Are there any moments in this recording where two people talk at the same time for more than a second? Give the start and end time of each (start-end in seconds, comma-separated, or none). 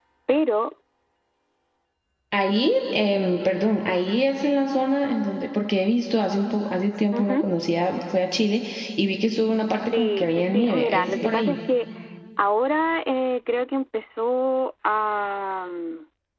9.9-11.6